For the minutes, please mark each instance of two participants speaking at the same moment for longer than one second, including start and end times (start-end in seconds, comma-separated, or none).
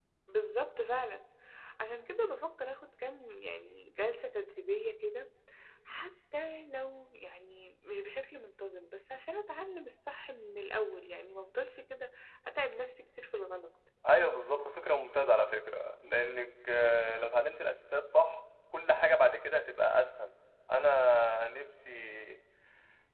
none